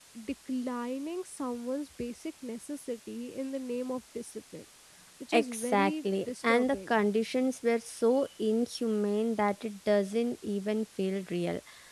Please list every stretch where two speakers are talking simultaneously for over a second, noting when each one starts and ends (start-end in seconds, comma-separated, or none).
5.3-6.9